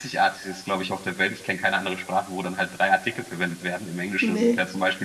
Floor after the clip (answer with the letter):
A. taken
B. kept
B